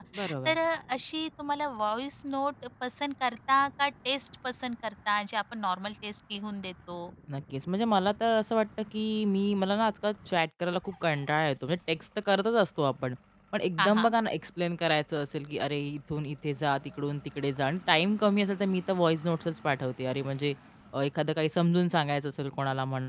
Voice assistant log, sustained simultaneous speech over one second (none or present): none